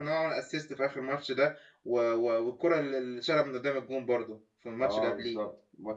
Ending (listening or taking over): taking over